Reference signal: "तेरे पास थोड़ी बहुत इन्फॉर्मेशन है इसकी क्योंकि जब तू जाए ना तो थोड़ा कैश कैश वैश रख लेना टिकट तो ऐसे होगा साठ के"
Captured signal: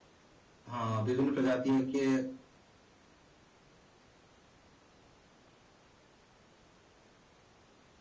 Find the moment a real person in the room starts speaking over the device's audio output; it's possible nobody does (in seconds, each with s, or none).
0.7 s